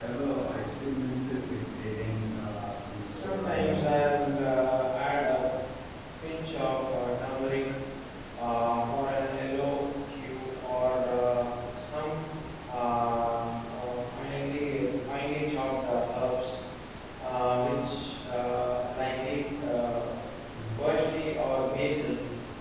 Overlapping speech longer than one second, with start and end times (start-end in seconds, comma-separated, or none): 3.1-4.3